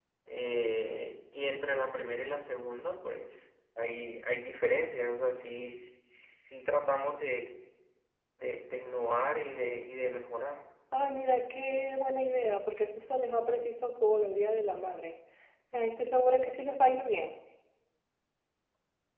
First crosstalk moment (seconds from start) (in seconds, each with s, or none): none